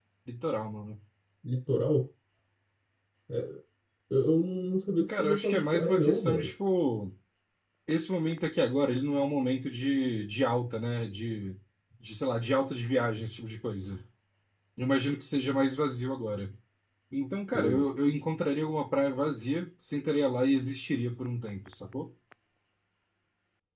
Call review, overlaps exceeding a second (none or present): present